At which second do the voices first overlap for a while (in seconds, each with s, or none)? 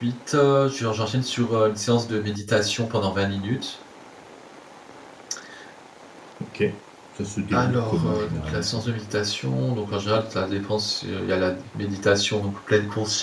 7.5 s